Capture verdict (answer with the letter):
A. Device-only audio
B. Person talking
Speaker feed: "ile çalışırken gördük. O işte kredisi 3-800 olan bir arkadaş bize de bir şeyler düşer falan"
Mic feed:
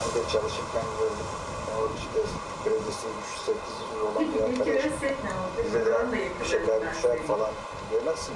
B